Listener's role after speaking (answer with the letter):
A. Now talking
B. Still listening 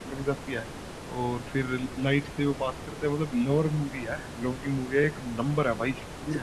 B